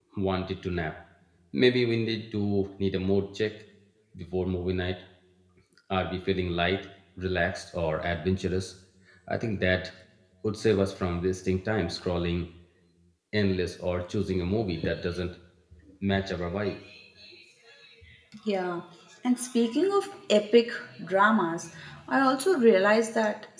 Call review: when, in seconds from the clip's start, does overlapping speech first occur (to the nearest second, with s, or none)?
none